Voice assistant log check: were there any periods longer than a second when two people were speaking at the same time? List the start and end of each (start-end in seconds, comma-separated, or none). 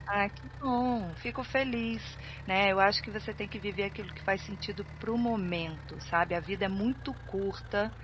none